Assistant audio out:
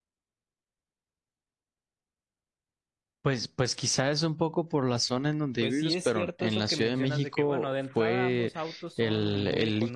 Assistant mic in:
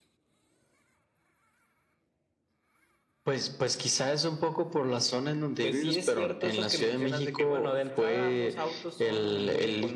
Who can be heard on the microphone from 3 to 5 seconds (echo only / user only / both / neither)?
echo only